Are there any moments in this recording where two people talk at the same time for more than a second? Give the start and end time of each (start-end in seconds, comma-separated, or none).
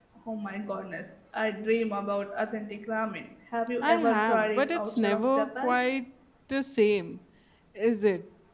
3.8-5.8